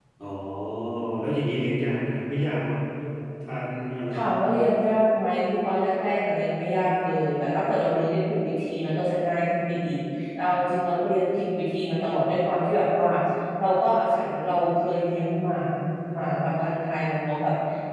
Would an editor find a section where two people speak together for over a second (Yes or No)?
No